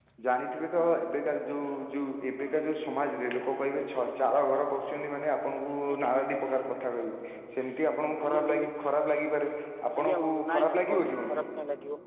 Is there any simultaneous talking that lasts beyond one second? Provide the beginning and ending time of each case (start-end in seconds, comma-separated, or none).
10.0-11.4